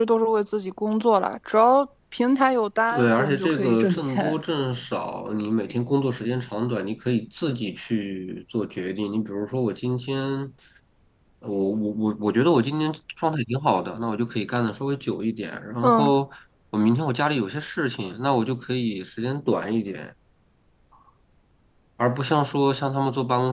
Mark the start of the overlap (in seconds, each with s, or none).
2.9 s